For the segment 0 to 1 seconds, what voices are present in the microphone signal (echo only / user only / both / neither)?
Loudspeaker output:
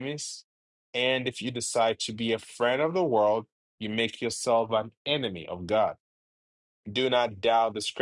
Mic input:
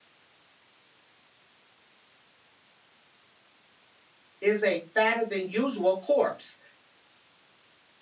neither